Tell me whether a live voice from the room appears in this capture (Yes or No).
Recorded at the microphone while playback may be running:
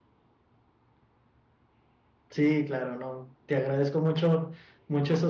Yes